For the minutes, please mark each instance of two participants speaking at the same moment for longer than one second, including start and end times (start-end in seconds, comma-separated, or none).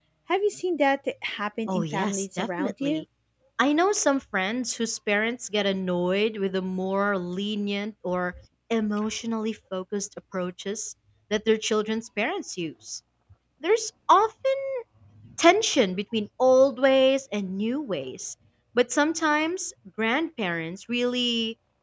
1.7-3.0